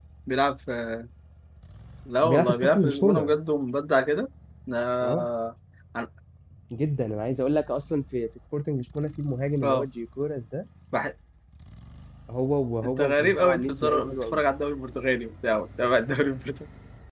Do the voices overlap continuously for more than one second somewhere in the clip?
Yes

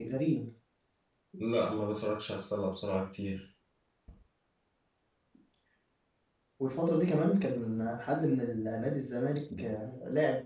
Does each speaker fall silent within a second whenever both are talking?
Yes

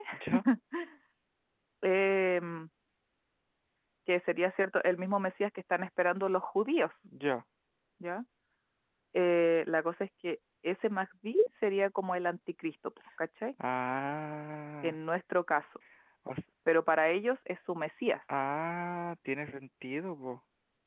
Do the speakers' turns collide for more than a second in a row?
No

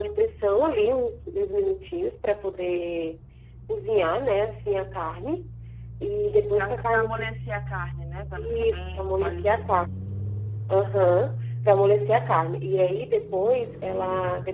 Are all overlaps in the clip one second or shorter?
No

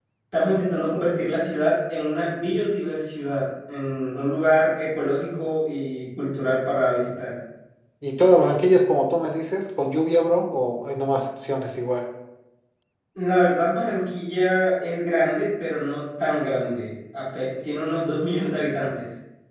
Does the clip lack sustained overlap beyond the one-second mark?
Yes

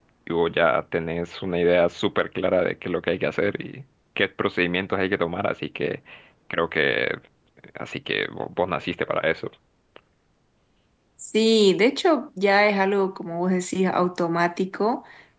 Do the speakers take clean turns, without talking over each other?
Yes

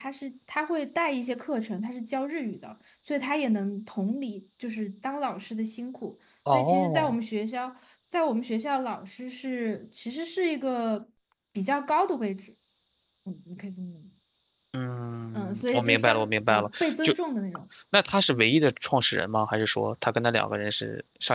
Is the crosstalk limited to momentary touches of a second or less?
No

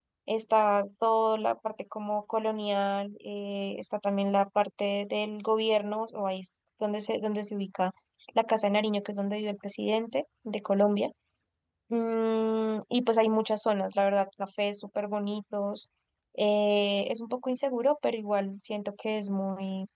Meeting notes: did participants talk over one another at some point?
No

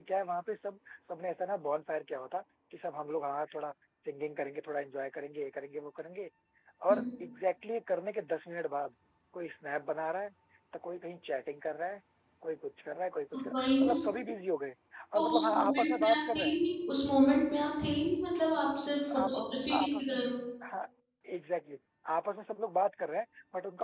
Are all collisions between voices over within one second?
No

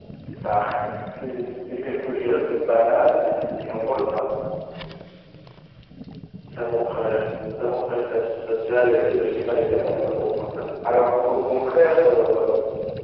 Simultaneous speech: Yes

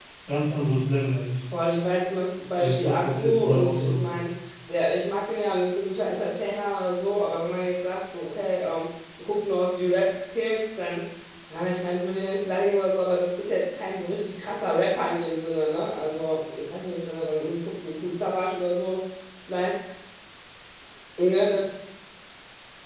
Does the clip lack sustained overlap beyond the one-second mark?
No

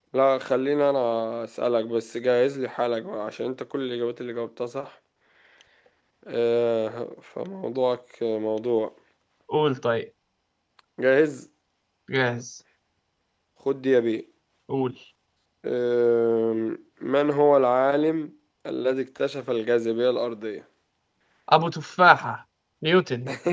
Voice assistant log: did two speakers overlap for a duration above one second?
No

